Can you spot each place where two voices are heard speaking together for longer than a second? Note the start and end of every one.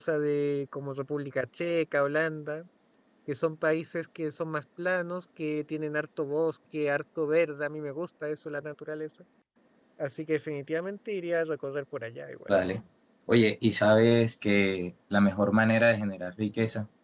none

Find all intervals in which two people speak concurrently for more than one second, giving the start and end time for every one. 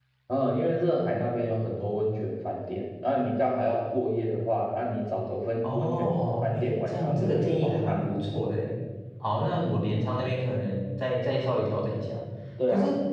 5.6-8.1

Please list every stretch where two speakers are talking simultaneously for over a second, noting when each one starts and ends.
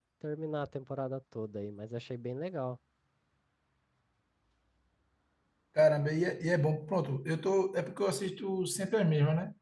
none

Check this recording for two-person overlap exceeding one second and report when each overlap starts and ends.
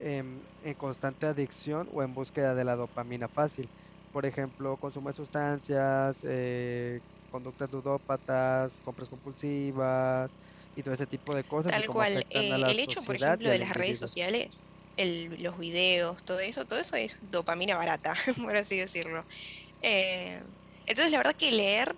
11.7-14.1

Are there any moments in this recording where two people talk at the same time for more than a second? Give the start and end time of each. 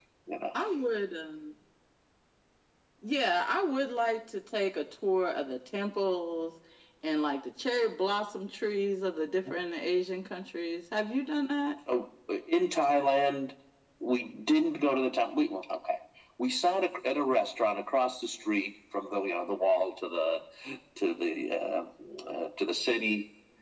none

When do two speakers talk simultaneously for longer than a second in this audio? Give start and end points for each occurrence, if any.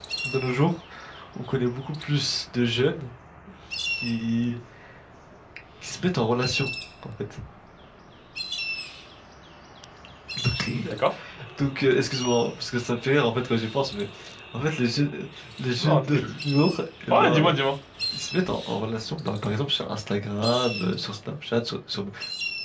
none

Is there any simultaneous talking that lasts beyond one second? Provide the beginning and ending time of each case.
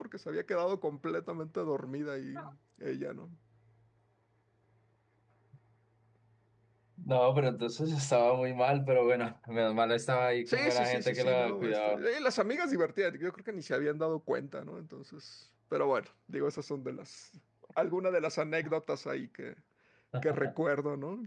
10.5-12.0

